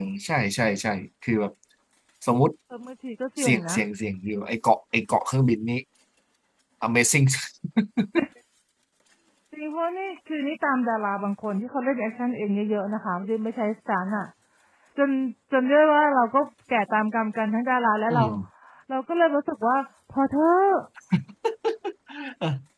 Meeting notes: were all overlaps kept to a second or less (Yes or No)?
Yes